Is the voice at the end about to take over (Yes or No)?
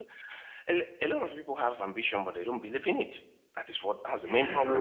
Yes